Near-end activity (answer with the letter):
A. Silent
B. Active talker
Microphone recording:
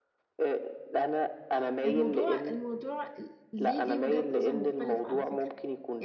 B